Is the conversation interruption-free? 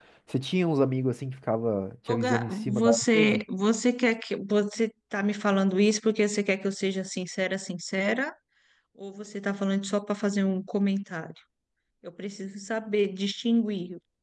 No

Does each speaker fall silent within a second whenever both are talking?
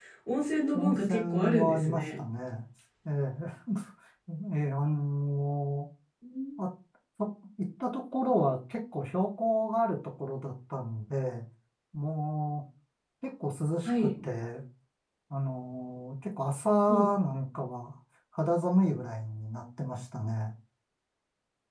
No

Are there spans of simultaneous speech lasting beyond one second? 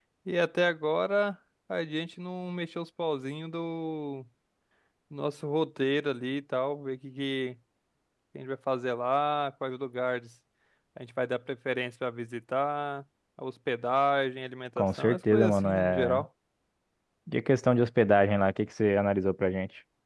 Yes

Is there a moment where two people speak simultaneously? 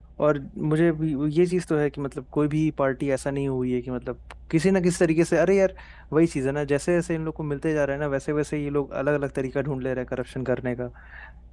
No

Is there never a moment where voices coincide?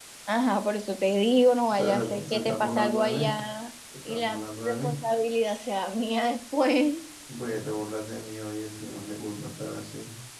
No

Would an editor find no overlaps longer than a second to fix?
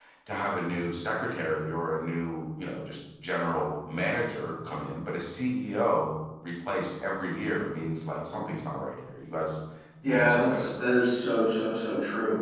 No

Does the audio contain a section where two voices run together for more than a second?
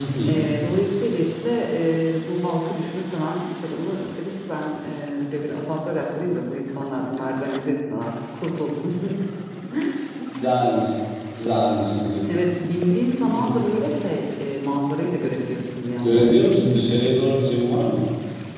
No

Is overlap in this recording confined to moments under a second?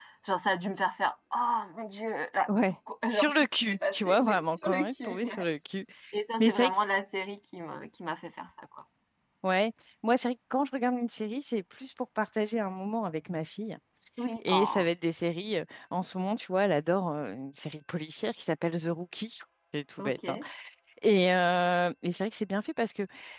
No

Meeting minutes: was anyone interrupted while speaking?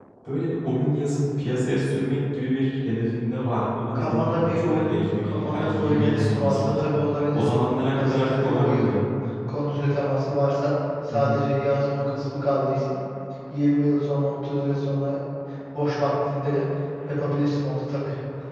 Yes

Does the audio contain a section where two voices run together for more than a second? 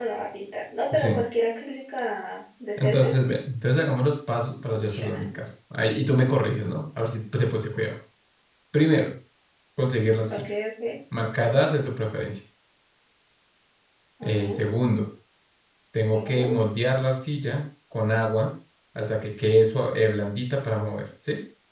No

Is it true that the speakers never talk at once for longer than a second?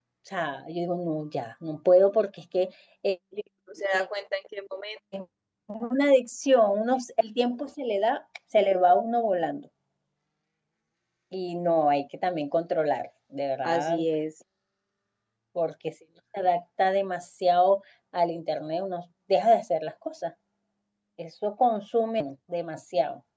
Yes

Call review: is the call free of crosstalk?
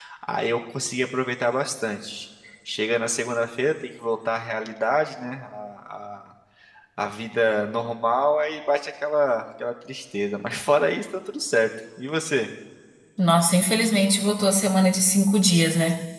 Yes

